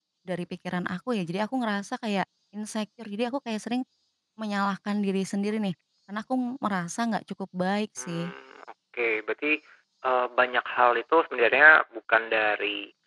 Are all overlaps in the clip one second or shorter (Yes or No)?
Yes